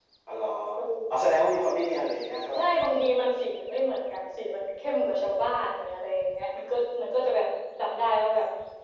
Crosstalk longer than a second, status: none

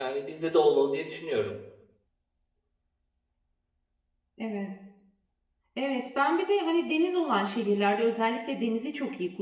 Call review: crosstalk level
none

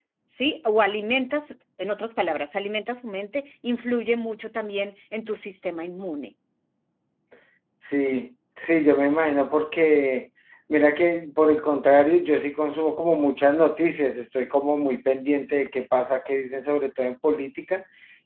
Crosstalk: none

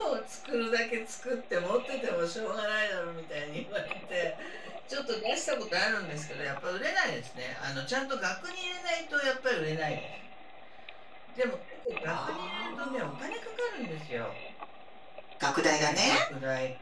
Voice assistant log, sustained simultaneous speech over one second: present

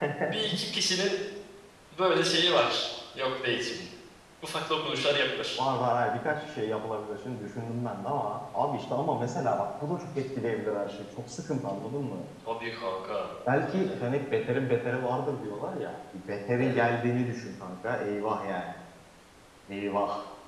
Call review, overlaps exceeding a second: none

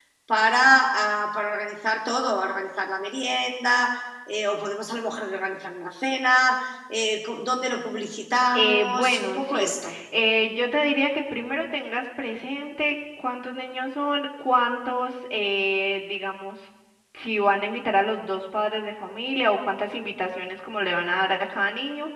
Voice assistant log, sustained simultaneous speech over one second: present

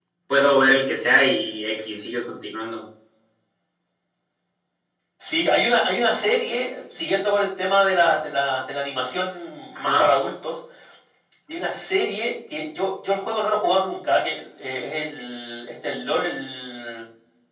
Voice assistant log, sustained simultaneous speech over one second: none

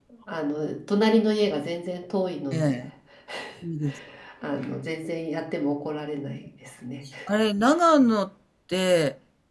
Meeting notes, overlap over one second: none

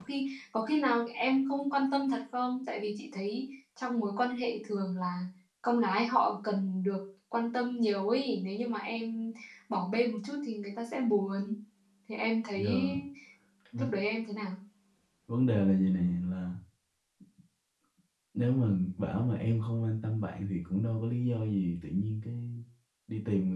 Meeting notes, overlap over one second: none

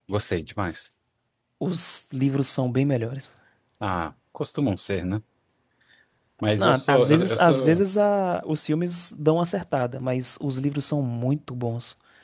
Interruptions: present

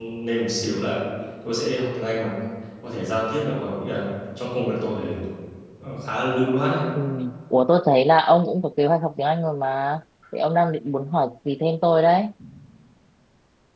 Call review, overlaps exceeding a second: none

